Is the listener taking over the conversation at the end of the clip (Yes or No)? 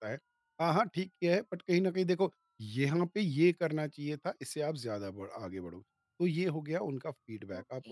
No